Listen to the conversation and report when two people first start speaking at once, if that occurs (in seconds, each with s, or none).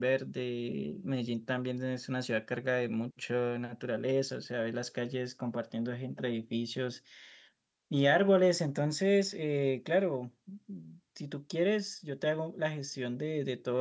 none